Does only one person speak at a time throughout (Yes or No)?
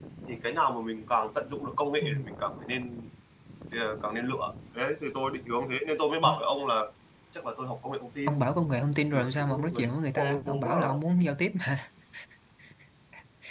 No